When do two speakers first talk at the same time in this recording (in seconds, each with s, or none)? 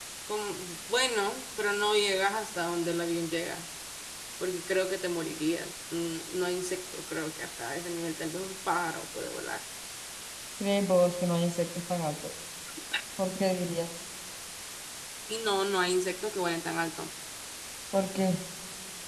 none